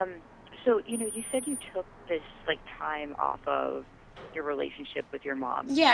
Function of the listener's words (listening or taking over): taking over